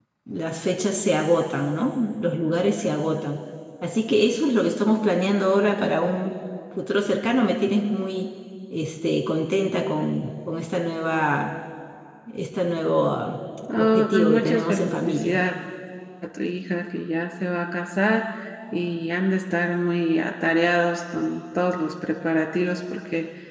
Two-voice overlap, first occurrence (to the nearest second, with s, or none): 14 s